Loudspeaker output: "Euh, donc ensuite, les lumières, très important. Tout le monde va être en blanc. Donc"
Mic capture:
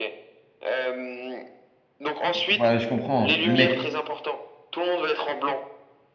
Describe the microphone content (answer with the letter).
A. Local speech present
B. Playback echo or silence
A